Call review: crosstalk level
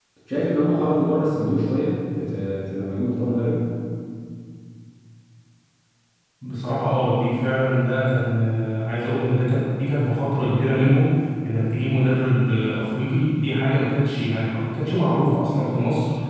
none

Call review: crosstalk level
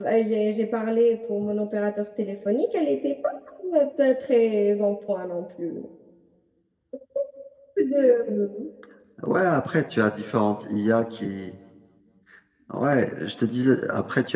none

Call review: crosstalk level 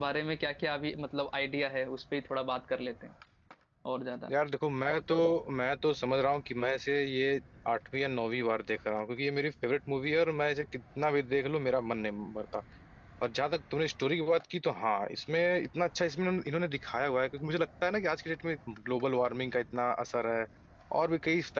none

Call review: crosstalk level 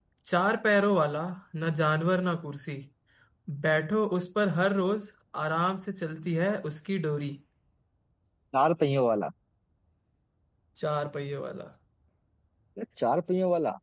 none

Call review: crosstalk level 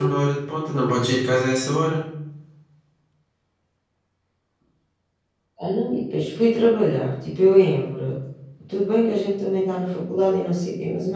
none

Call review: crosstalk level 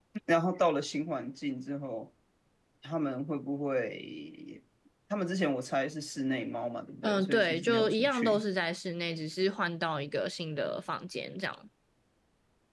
present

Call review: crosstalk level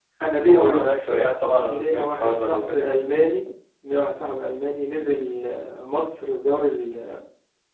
present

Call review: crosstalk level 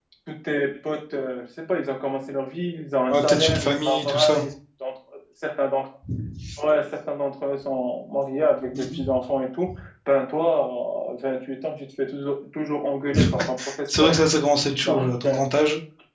present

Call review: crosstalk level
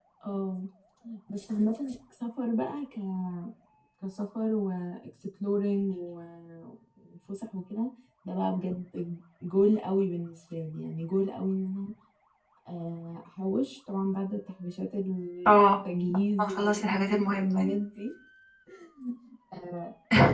present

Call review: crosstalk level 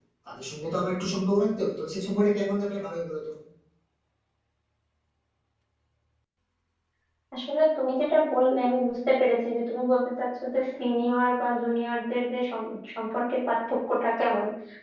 none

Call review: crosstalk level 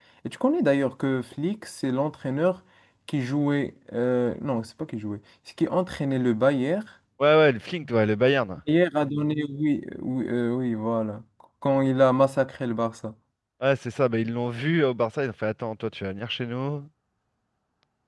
none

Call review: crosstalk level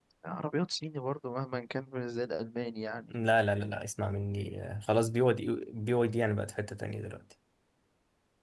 none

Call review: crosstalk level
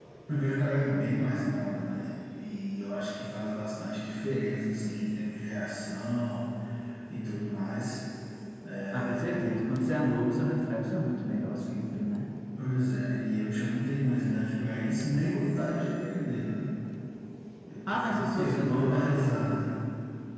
present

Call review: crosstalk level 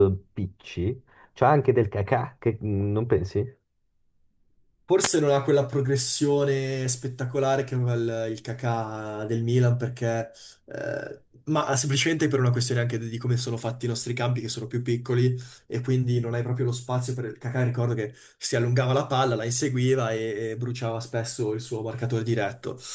none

